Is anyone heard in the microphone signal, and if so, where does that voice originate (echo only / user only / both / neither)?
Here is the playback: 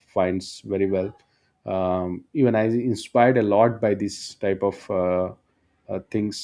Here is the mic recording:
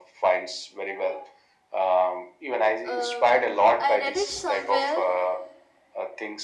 both